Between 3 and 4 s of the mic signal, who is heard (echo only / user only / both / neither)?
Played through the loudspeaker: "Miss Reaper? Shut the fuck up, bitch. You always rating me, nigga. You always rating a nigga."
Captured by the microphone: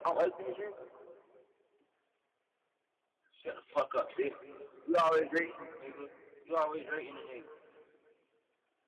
echo only